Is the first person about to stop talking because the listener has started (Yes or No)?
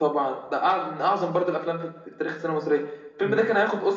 No